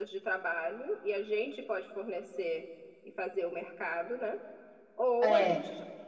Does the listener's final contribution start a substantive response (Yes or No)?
No